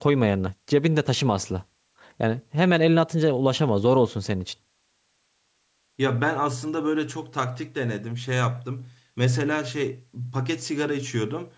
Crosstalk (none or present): none